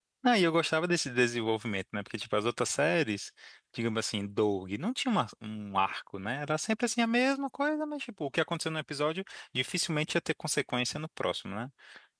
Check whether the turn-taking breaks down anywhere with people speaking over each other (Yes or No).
No